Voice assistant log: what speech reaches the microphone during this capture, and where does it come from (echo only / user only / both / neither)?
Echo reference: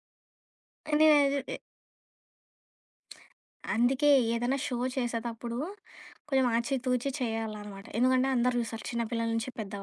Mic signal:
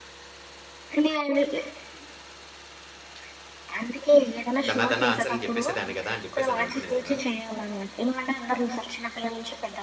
both